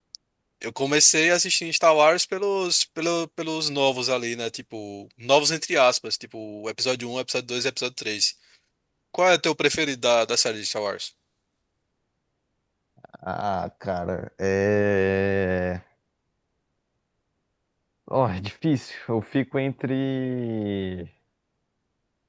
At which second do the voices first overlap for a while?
none

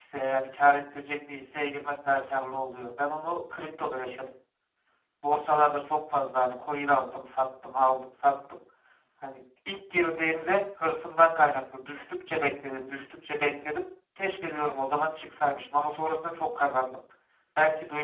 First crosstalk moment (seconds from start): none

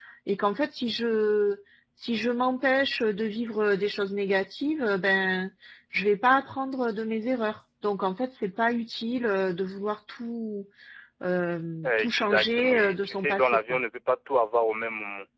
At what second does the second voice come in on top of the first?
11.8 s

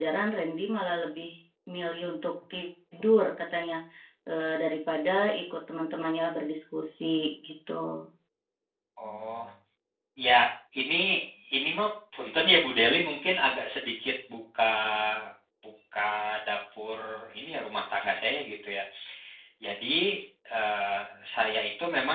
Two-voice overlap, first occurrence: none

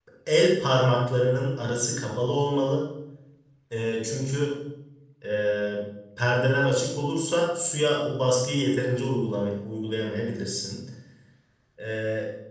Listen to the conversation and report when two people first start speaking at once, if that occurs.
none

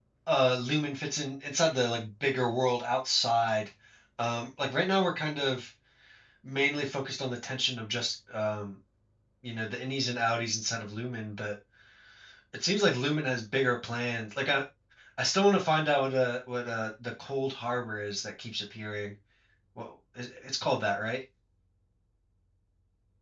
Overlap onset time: none

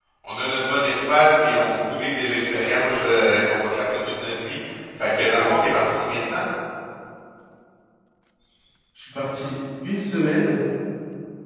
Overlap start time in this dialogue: none

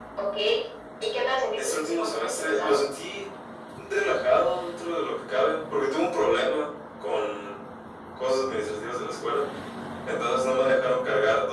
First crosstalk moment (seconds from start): 1.6 s

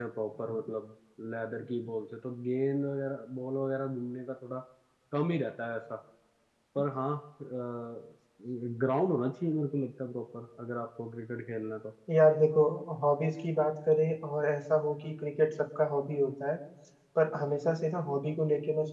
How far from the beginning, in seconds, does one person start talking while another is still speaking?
none

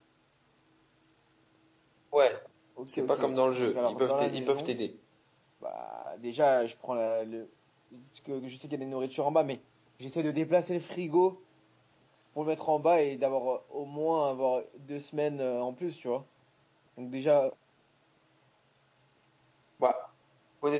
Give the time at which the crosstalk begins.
2.9 s

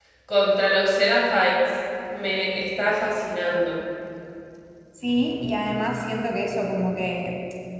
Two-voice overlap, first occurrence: none

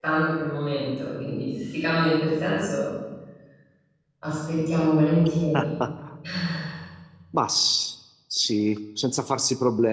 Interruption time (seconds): none

